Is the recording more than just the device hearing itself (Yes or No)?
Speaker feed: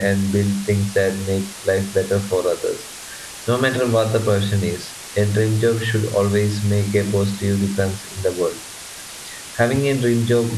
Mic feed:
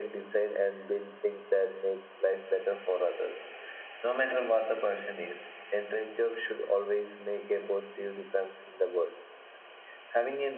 No